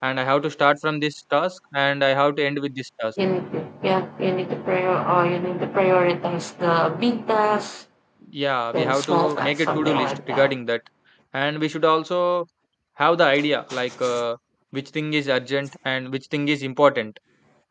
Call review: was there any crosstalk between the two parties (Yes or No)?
Yes